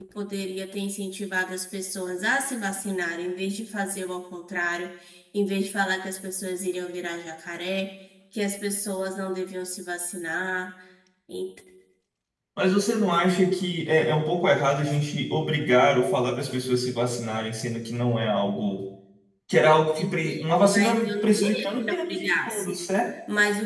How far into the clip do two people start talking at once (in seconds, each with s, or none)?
20.0 s